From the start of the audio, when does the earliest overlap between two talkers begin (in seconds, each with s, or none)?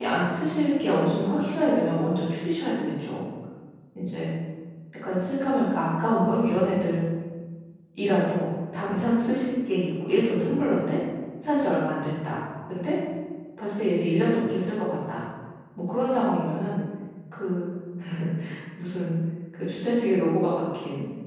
none